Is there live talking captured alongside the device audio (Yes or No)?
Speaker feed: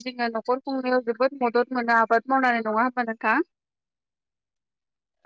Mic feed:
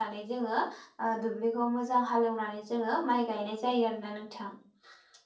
Yes